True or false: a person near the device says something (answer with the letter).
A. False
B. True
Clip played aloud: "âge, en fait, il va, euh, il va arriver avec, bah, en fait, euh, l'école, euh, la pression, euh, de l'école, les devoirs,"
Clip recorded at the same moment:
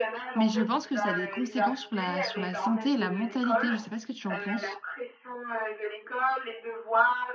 B